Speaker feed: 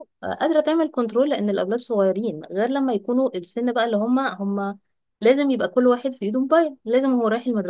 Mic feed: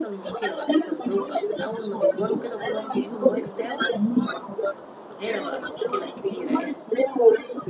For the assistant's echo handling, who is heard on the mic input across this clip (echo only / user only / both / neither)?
both